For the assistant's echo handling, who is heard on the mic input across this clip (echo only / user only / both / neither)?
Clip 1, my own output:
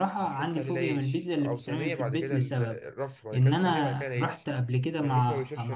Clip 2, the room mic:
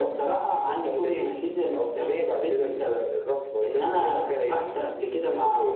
both